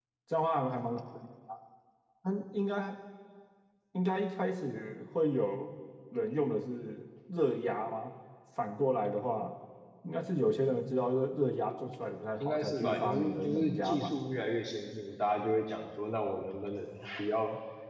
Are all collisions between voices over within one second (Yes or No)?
No